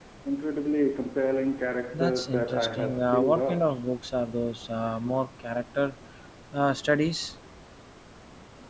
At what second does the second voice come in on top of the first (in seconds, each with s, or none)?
1.9 s